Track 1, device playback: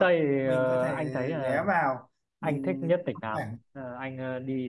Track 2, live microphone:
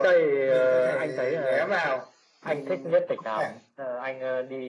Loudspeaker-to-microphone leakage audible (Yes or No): Yes